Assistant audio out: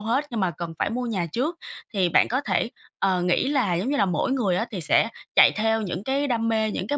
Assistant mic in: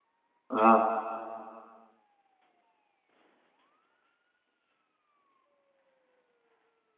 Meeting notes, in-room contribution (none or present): present